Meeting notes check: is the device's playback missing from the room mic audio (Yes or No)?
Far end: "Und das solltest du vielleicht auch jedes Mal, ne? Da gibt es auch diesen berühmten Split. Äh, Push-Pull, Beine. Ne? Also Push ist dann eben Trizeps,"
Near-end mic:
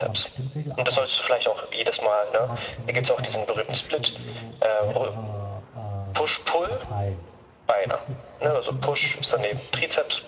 No